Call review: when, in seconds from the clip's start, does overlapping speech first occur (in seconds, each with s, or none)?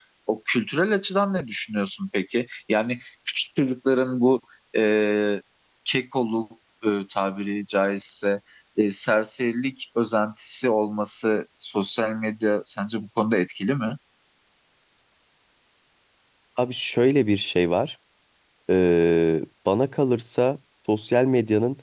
none